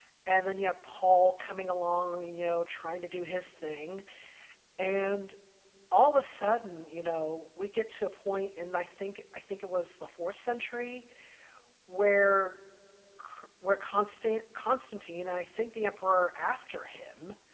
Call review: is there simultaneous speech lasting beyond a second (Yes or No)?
No